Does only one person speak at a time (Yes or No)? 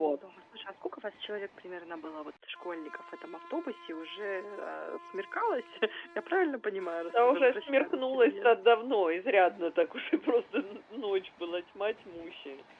No